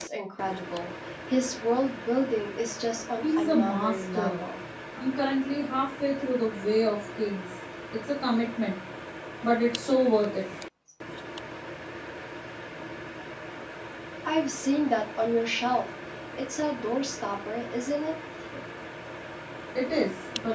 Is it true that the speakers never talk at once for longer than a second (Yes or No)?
No